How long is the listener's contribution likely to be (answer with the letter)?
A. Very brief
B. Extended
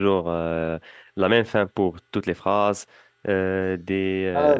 A